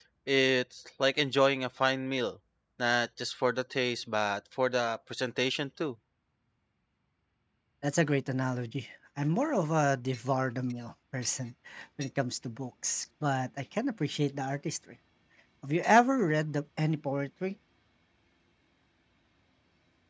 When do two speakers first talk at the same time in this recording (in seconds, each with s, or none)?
none